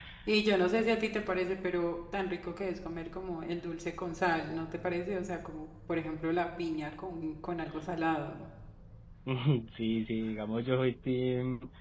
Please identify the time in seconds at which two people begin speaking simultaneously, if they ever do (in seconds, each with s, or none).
none